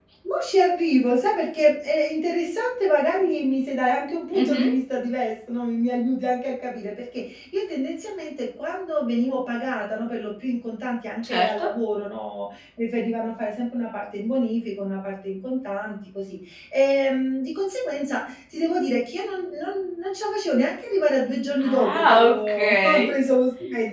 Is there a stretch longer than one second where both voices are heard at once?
Yes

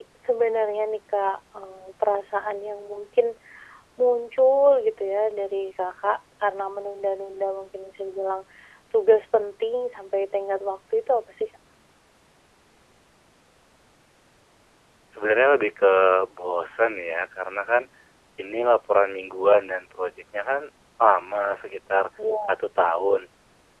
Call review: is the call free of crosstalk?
Yes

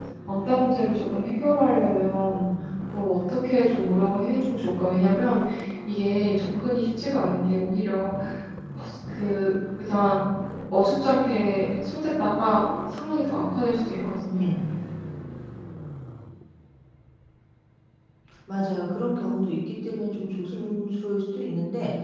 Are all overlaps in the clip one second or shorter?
Yes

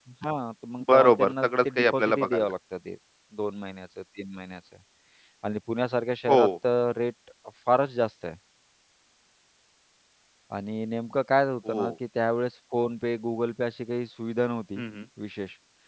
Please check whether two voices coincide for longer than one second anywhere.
Yes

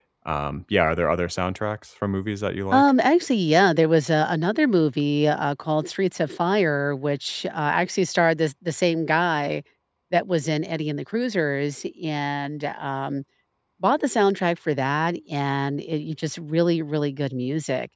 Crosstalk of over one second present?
No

